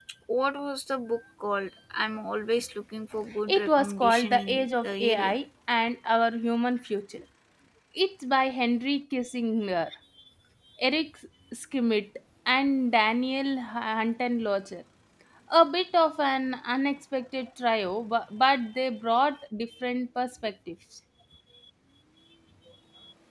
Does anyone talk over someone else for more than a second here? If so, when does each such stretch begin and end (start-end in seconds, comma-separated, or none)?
3.5-5.3